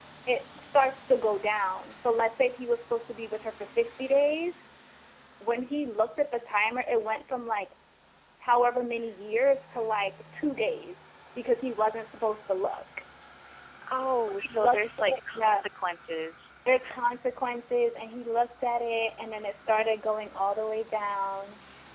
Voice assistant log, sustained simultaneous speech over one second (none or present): present